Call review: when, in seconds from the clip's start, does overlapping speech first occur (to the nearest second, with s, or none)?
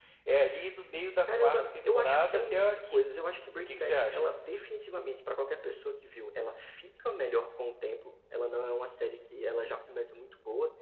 1 s